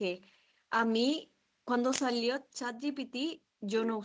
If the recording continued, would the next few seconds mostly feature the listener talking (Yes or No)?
No